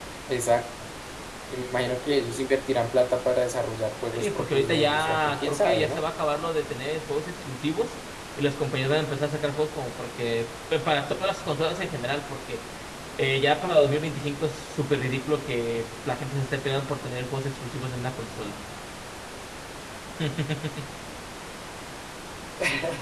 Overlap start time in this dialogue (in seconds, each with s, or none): 4.1 s